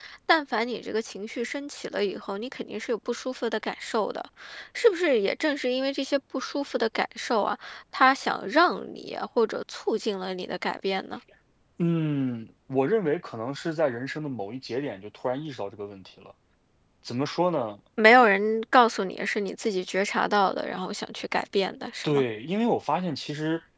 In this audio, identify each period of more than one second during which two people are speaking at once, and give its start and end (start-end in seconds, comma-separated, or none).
none